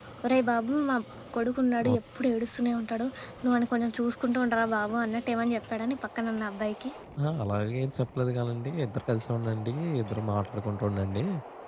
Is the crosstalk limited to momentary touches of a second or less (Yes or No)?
Yes